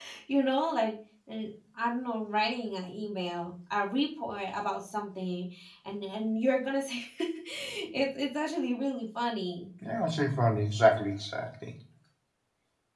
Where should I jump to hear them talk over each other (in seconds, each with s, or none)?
none